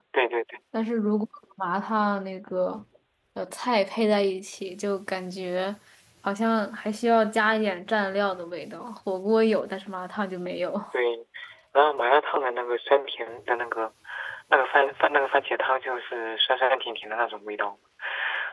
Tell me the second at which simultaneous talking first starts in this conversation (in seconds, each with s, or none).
none